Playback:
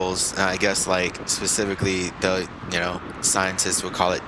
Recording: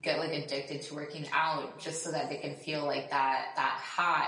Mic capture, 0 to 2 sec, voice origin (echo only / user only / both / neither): user only